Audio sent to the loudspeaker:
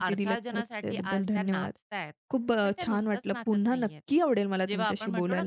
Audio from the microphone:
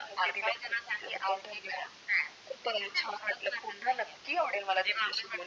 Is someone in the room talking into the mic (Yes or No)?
No